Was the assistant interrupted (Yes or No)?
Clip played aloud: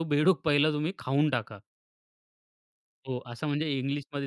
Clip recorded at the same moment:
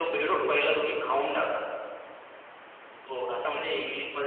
No